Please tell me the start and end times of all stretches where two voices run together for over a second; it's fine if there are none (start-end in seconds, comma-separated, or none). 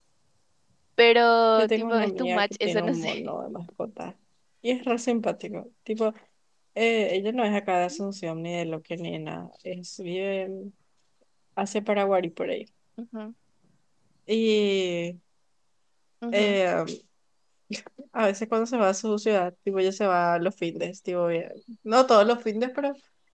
1.6-3.3